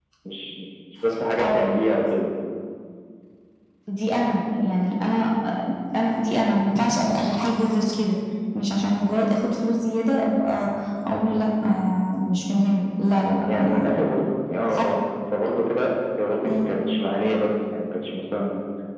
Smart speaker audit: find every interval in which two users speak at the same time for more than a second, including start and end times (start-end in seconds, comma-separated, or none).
none